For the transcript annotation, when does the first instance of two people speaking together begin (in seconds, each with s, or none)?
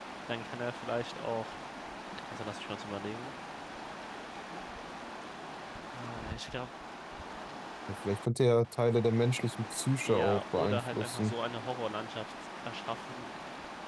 10.0 s